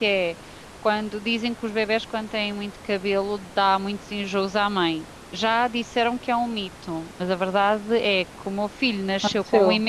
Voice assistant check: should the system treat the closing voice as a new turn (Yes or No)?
No